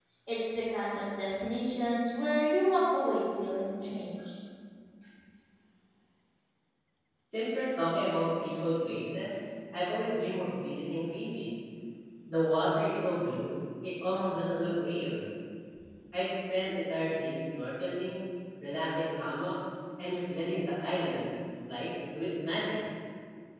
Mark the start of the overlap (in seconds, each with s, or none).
none